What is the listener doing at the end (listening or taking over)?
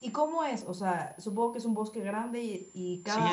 taking over